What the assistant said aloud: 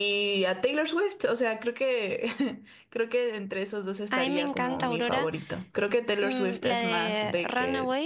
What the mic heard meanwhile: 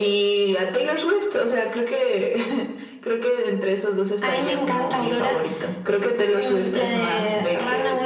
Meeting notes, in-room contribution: none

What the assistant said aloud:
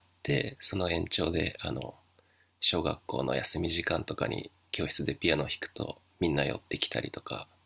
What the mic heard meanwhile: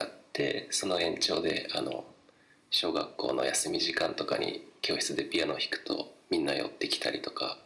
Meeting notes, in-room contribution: none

